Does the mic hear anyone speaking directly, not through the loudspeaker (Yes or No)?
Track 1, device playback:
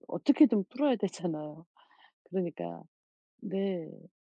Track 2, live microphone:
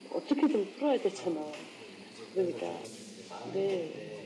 Yes